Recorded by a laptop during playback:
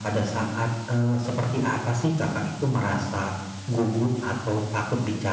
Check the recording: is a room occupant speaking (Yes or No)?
No